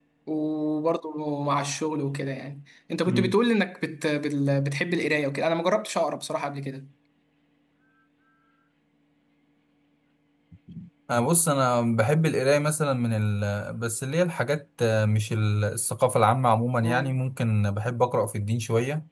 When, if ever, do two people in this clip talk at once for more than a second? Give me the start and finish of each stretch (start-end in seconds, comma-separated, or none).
none